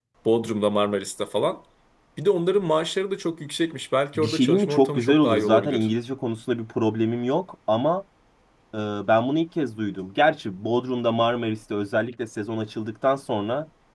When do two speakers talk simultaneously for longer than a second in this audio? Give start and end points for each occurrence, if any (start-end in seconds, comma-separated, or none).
4.2-5.9